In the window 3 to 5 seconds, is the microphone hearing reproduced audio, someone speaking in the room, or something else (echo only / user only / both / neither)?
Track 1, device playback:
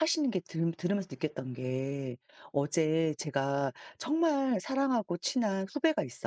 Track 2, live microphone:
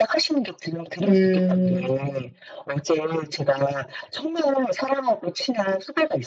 echo only